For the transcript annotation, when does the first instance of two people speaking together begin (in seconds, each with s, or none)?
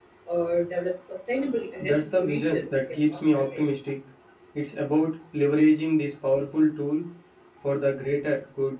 1.8 s